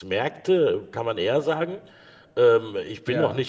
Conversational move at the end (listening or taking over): listening